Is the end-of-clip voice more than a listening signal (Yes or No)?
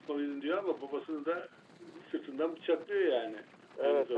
Yes